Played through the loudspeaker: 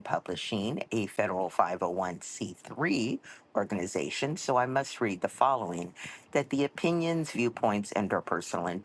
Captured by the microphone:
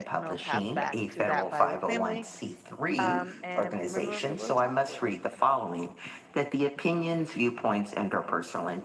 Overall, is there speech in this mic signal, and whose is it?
both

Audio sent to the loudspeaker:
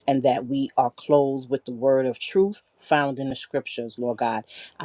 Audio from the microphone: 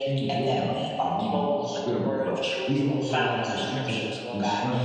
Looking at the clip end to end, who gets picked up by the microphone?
both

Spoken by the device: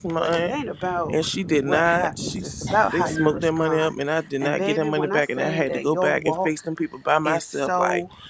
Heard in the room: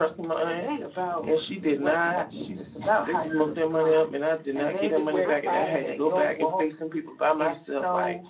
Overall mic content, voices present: both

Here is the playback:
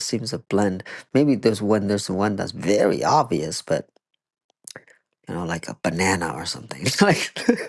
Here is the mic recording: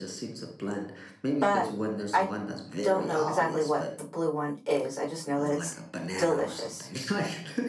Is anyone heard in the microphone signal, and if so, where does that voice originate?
both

